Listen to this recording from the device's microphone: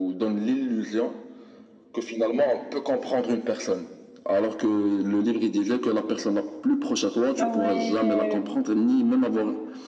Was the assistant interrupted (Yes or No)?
Yes